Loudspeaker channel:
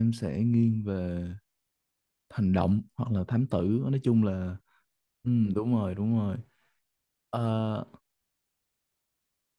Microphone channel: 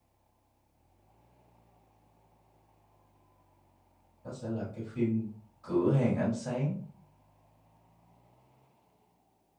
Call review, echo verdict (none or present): none